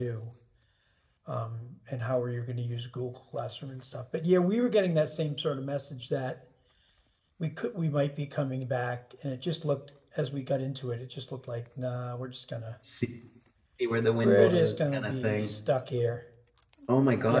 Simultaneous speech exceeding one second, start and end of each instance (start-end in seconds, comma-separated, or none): 14.2-15.5